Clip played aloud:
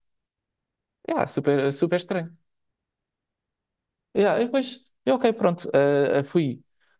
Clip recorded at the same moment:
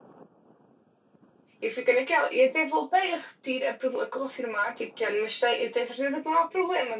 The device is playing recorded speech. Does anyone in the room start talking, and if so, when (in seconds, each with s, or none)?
1.6 s